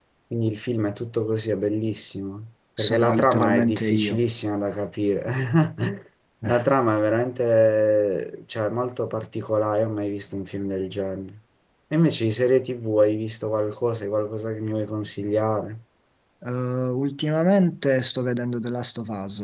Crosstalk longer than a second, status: present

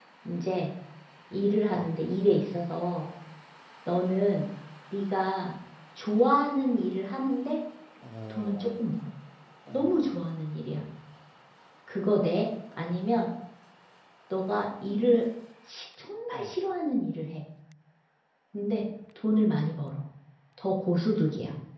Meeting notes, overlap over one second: none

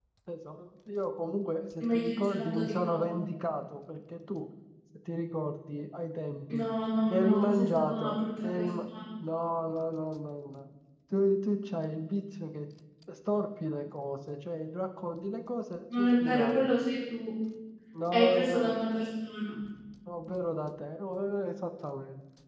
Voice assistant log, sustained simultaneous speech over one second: present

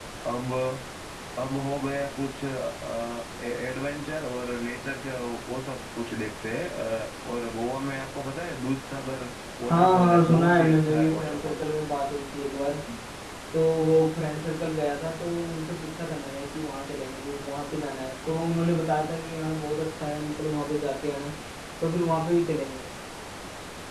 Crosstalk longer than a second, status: present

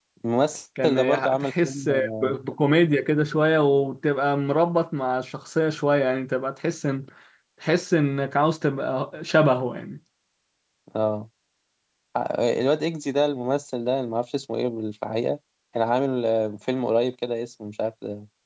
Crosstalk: present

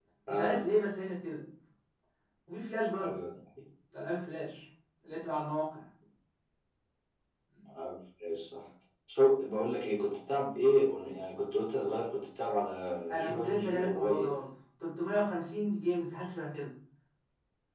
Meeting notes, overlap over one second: present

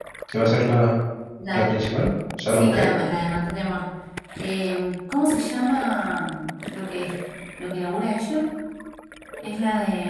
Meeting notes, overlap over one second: none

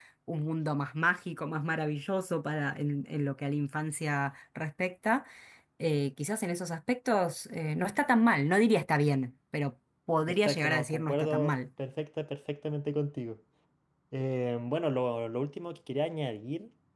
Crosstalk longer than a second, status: present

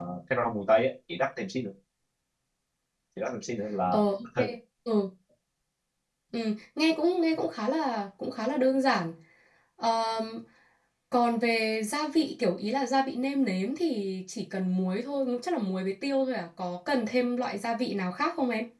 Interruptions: none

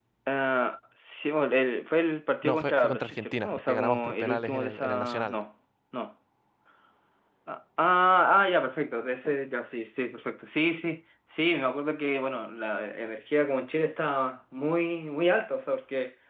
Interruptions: present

